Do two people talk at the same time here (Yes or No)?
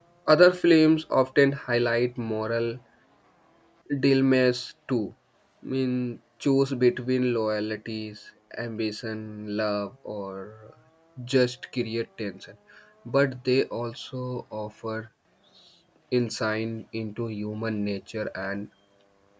No